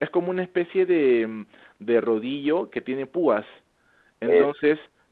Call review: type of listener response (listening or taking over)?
listening